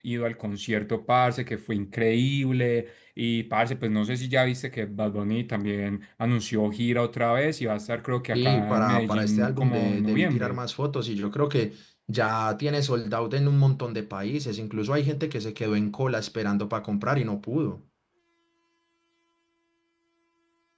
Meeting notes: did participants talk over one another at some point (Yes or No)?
Yes